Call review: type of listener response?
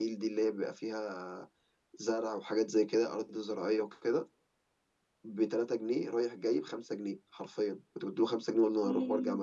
listening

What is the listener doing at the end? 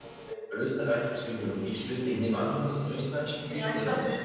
taking over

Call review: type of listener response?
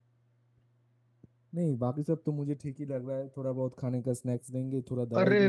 taking over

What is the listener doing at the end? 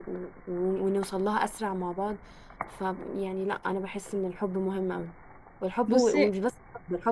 listening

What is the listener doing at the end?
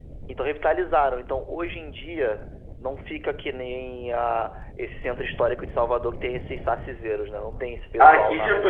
taking over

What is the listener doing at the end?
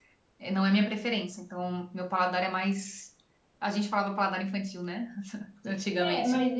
taking over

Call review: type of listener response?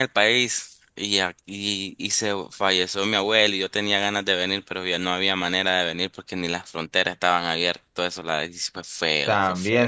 taking over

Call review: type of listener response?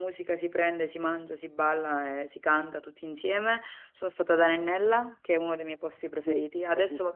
listening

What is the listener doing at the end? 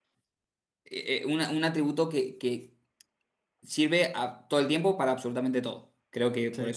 listening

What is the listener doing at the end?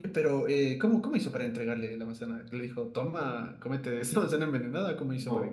taking over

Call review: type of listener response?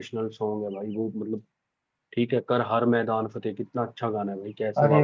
taking over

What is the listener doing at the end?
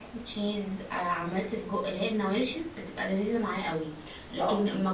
listening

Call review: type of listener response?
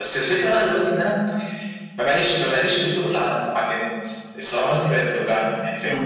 listening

